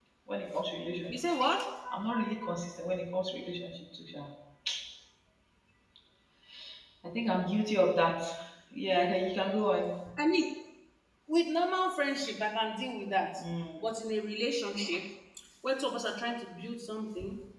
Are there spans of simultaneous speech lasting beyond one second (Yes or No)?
No